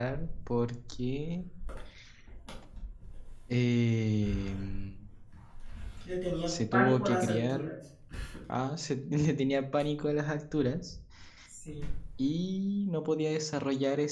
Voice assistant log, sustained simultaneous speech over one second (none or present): present